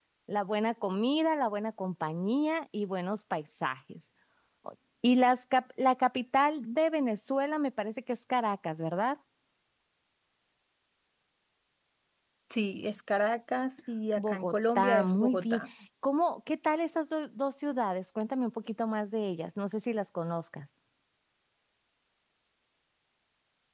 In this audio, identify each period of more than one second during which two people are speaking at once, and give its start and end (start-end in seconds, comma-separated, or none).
14.2-15.6